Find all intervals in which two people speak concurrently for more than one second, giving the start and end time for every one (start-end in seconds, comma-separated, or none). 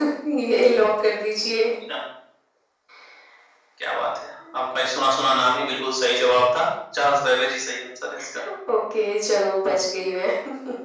none